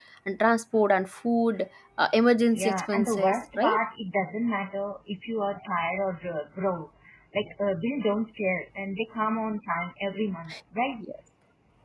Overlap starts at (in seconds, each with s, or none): 2.5 s